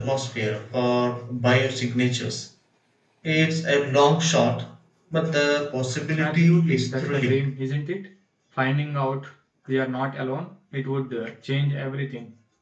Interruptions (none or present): present